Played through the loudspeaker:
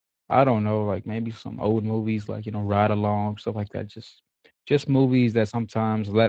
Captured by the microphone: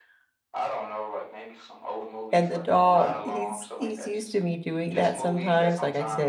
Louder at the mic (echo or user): user